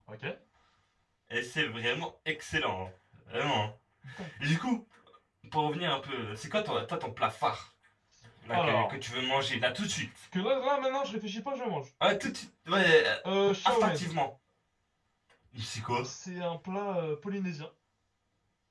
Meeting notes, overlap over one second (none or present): none